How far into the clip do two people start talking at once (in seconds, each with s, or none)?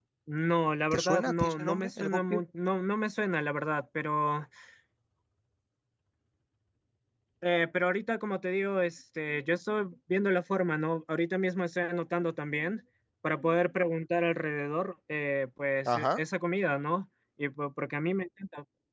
0.9 s